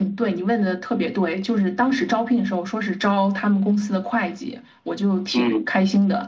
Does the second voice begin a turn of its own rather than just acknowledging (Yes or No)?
No